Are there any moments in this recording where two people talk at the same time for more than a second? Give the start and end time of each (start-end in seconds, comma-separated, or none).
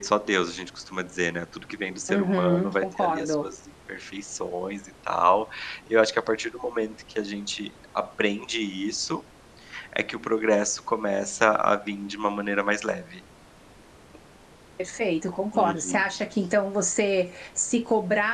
2.1-3.5